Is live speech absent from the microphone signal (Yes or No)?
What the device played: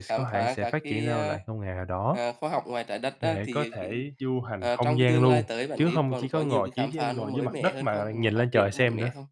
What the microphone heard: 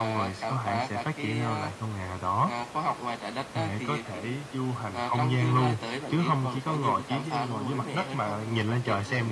Yes